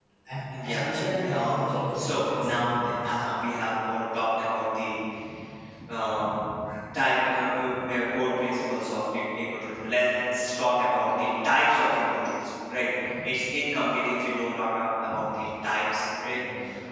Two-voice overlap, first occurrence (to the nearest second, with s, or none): 1 s